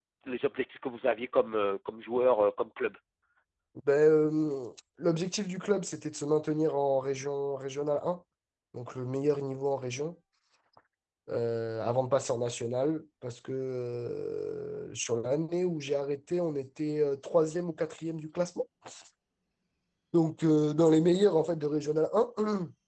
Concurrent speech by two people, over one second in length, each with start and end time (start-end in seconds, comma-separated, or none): none